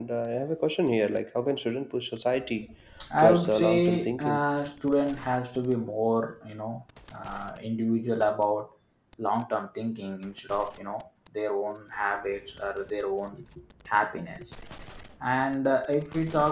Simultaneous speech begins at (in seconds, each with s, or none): 3.2 s